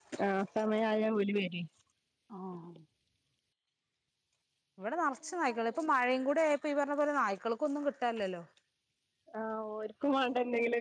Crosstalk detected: No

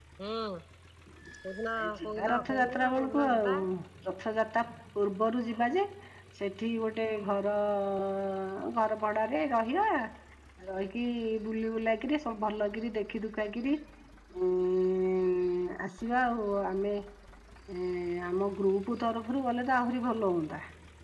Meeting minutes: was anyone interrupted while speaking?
Yes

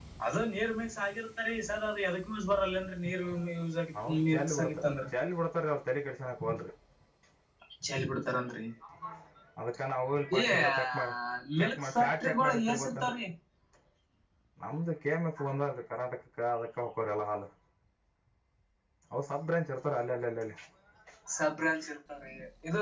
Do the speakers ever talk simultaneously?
Yes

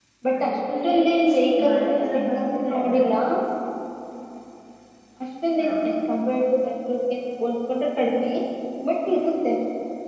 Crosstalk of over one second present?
Yes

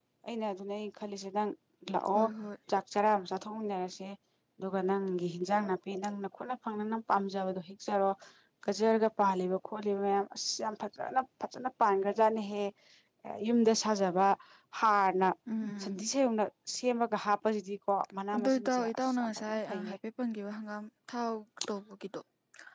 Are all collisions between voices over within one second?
No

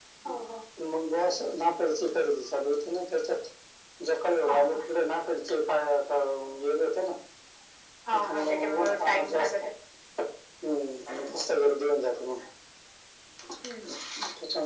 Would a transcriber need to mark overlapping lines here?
Yes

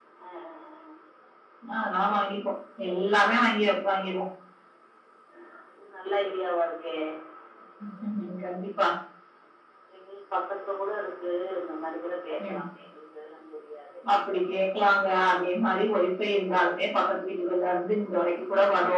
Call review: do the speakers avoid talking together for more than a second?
Yes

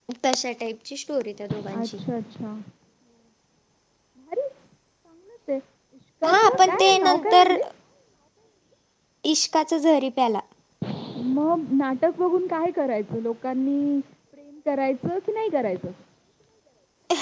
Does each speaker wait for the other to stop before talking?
No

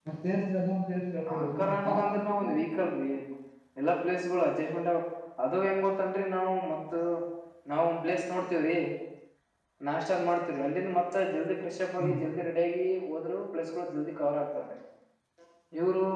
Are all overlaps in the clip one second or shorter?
No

